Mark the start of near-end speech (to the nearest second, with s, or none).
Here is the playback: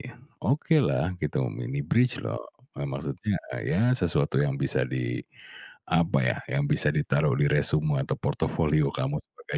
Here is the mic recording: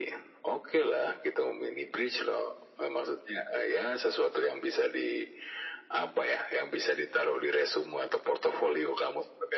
none